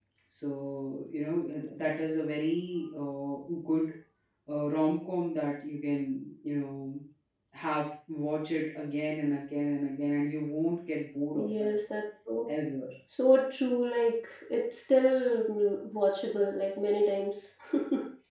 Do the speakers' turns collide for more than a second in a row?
No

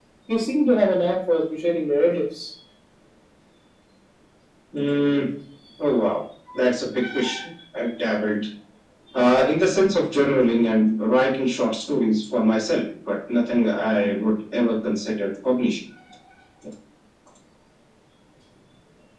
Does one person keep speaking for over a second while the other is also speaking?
No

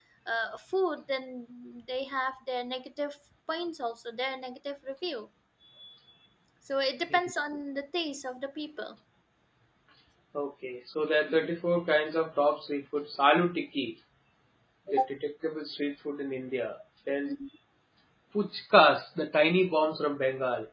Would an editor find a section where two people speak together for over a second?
No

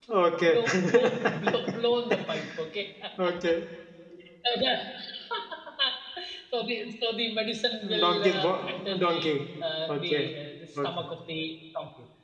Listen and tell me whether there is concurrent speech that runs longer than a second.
Yes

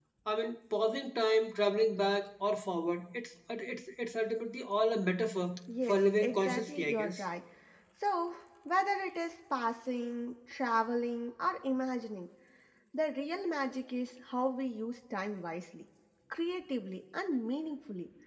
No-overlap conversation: No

